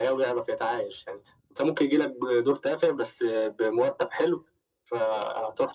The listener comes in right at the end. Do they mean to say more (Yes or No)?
No